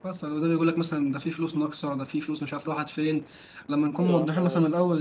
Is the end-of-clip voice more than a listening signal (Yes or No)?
No